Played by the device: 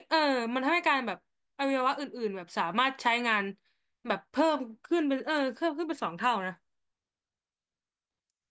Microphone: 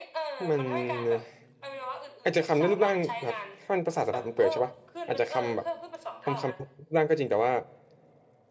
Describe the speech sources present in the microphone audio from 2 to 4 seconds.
both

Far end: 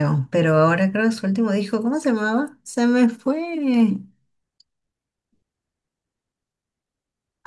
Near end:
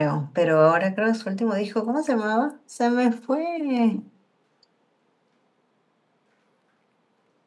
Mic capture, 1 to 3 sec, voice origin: echo only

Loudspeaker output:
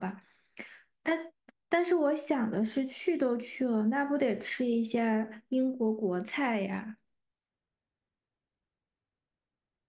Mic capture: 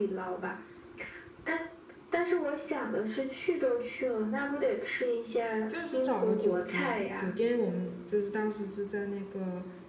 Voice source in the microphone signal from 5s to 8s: both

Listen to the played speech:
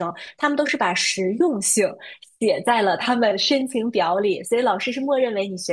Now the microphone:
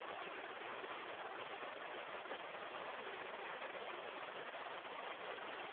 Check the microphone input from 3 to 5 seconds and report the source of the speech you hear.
neither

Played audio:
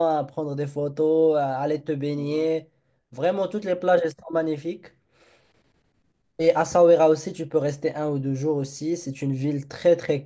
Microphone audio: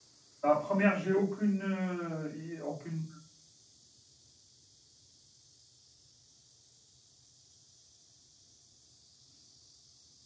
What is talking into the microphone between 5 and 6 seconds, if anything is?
neither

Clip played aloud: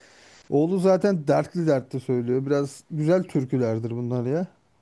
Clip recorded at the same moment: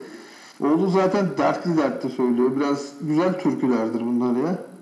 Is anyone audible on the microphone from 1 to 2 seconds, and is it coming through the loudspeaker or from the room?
echo only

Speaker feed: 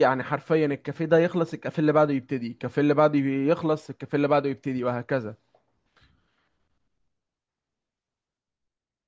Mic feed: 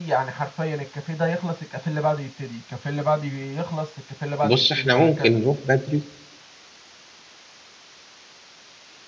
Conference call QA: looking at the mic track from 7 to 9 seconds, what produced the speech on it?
neither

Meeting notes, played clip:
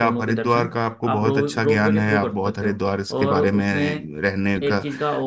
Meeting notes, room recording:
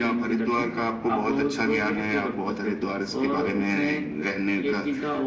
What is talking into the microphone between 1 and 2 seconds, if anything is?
echo only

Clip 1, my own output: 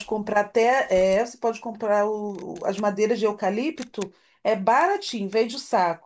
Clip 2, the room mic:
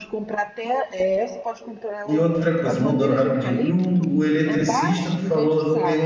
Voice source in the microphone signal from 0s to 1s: echo only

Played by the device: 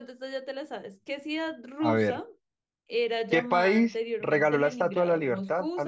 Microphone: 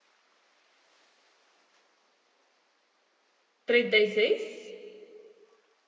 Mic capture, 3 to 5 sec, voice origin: user only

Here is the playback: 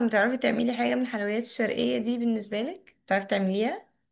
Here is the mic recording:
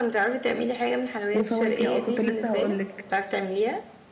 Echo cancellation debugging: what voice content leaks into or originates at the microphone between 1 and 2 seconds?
both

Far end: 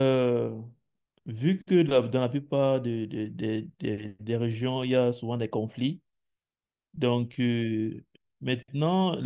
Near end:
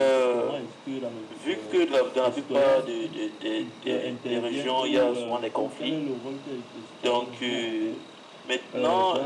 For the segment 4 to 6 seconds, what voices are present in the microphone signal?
both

